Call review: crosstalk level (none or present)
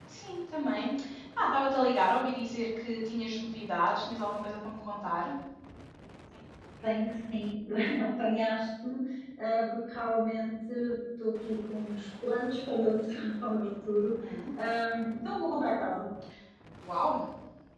none